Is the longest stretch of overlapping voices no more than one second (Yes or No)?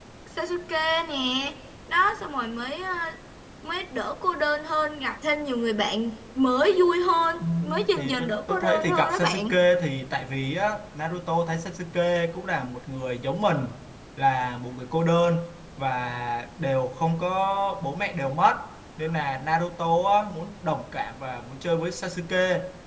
No